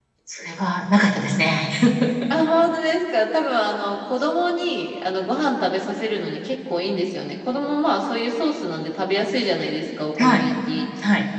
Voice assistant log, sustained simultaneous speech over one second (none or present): none